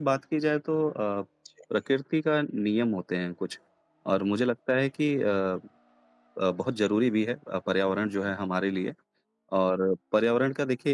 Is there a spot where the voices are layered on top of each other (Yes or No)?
No